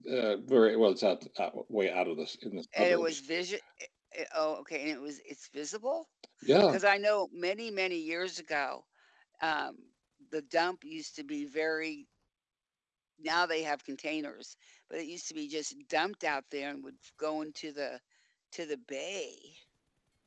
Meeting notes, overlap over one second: none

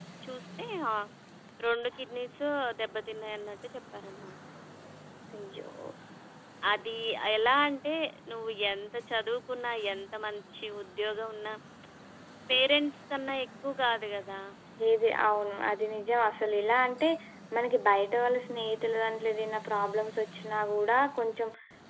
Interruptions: none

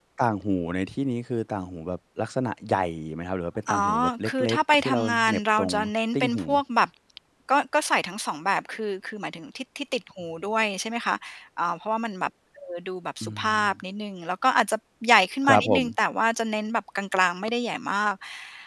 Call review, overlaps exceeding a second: present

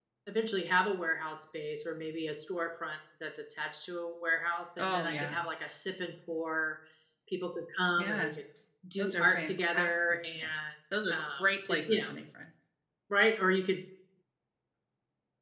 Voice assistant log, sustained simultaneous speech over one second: present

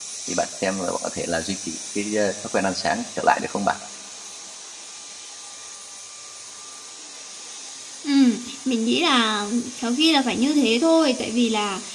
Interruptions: none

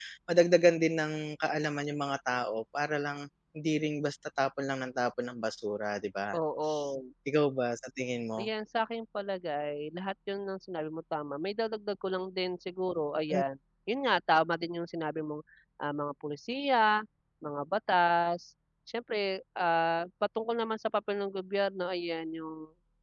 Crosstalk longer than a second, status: none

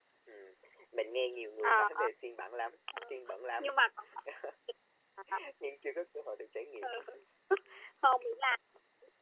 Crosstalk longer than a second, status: none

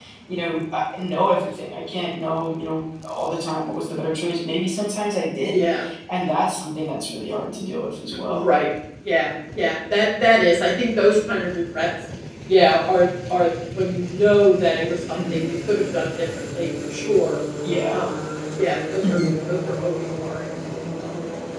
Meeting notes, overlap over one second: none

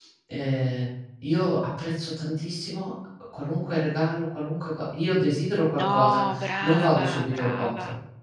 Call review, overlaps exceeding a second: present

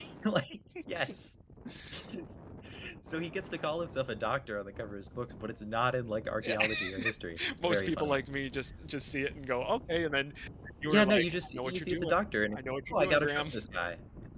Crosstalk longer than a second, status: present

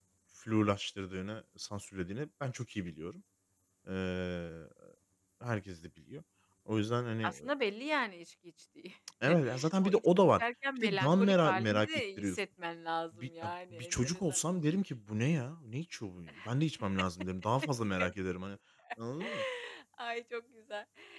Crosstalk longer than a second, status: present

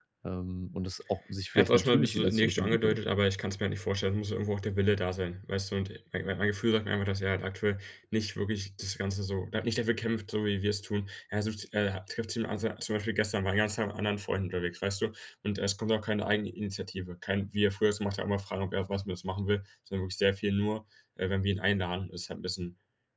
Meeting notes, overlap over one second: present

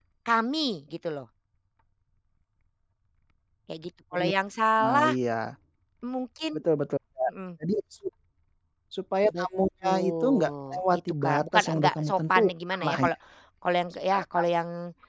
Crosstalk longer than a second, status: present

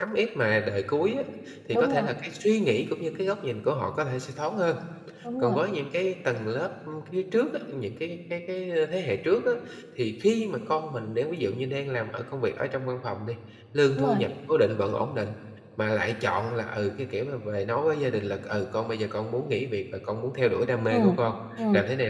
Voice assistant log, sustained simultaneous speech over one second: none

